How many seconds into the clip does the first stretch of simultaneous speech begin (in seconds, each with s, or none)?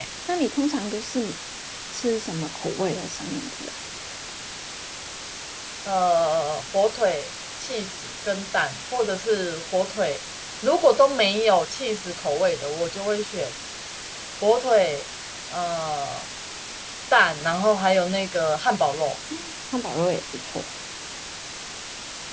none